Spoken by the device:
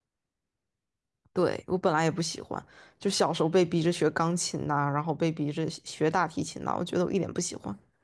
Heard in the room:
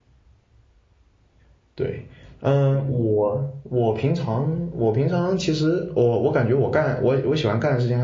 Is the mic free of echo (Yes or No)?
Yes